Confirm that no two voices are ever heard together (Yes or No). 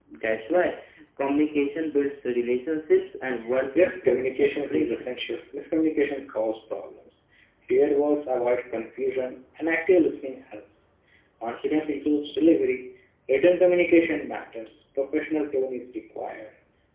No